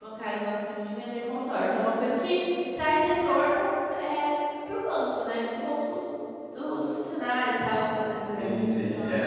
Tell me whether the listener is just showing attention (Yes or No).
No